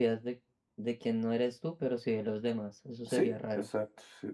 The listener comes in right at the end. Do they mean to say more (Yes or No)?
Yes